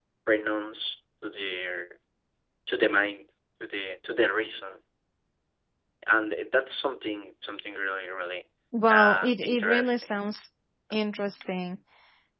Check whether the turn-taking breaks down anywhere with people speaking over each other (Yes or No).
Yes